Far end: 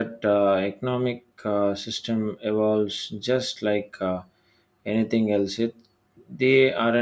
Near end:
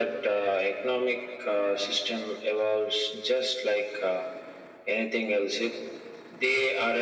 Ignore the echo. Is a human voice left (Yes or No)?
No